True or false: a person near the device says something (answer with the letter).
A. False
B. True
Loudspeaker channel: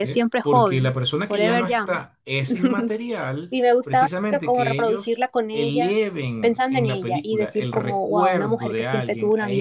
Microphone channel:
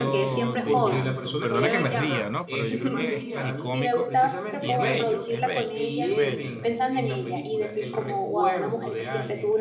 B